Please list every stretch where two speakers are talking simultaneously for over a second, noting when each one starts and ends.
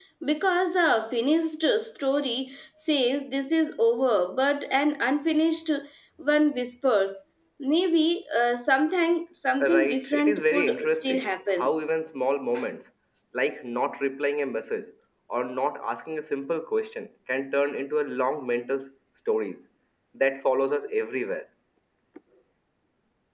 9.6-11.7

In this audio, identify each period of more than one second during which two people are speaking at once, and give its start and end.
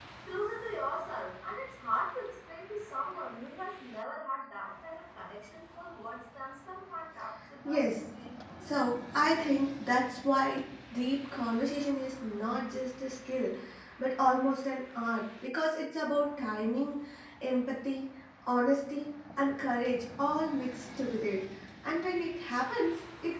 none

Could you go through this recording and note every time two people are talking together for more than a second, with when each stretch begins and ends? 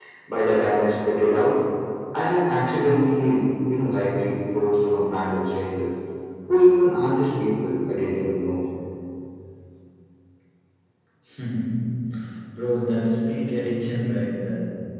none

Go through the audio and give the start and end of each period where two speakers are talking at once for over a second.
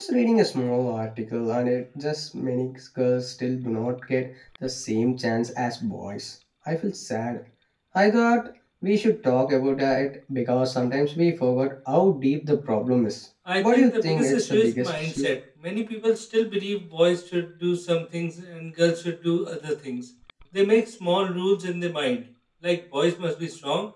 13.6-15.3

